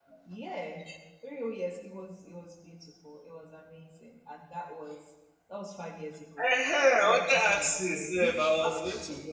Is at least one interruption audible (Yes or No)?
Yes